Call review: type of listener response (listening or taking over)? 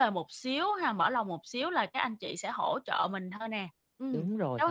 taking over